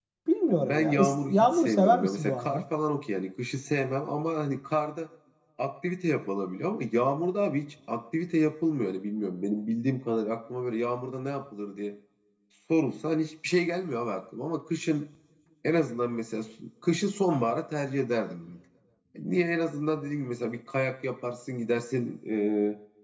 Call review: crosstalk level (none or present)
present